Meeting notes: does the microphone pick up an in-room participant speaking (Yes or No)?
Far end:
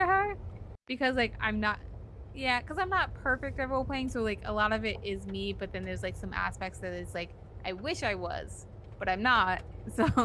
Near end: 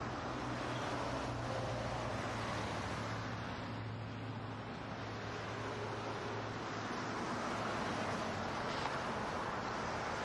No